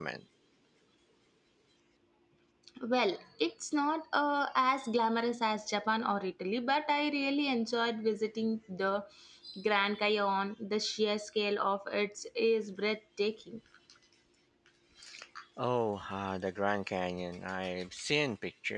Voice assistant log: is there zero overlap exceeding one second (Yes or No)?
Yes